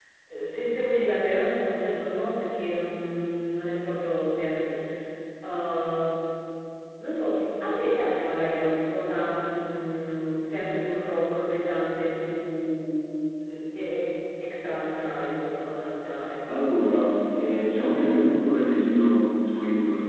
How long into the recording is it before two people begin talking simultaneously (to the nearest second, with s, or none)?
none